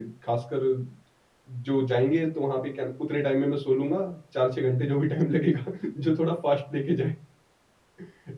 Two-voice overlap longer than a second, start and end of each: none

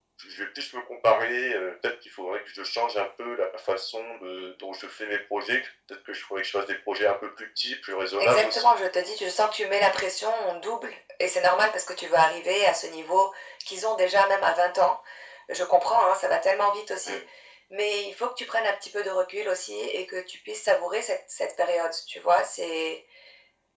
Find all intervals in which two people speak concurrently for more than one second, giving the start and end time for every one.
none

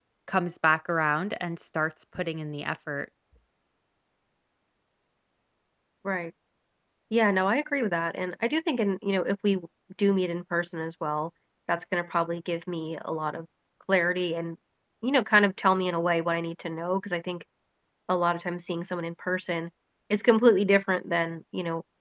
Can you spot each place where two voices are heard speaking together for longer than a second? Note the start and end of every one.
none

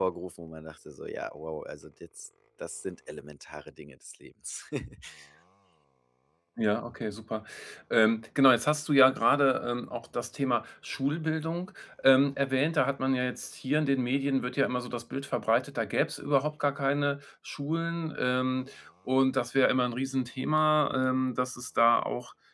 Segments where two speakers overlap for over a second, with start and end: none

